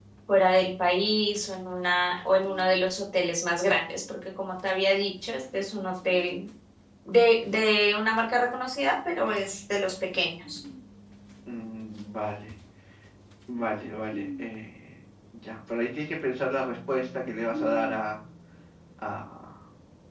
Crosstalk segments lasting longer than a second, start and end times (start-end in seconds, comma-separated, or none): none